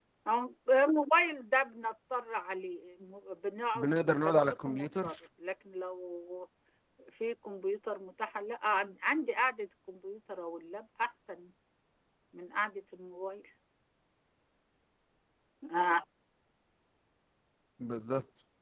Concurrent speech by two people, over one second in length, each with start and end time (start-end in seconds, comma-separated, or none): 3.8-5.1